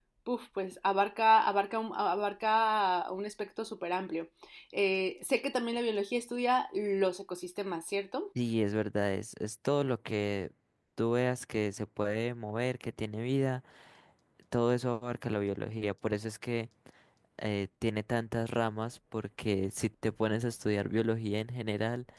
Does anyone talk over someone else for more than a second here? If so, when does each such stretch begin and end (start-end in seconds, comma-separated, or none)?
none